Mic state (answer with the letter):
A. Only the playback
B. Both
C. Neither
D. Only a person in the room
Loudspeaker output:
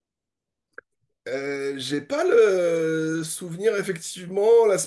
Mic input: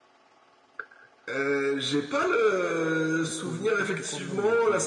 B